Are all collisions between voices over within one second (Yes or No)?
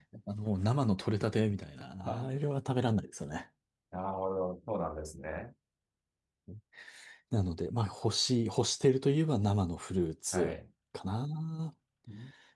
Yes